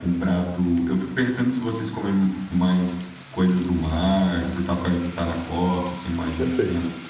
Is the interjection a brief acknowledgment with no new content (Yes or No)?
Yes